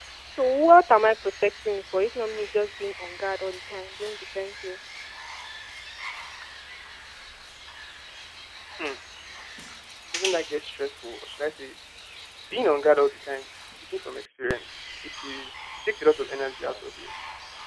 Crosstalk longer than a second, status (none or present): none